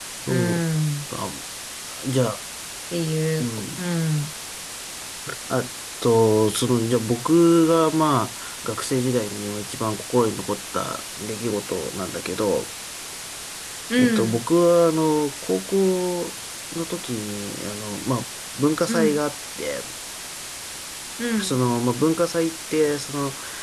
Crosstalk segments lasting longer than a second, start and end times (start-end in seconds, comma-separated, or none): none